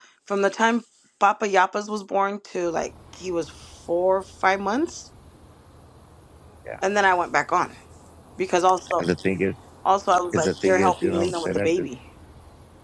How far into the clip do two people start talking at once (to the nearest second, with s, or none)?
10 s